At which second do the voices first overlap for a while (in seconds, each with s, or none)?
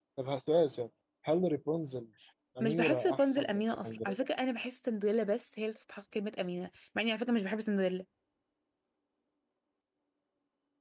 2.6 s